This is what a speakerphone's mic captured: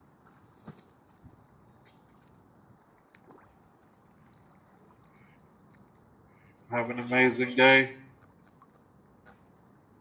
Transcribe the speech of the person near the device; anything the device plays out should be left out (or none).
Have an amazing day.